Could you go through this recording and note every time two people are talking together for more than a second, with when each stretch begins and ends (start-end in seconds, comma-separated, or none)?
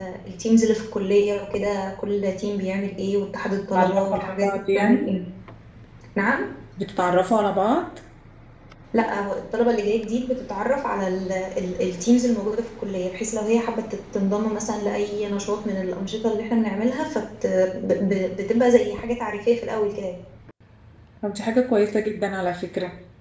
3.8-5.1